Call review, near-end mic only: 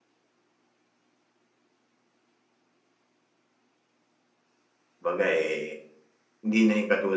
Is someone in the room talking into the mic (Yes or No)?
Yes